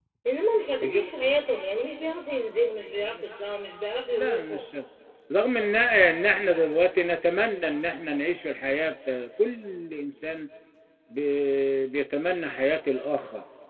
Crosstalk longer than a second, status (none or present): none